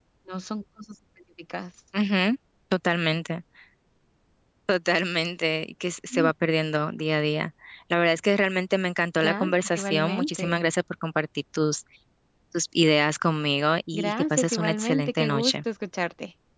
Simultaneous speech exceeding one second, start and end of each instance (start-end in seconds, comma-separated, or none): 9.2-10.6, 13.9-15.6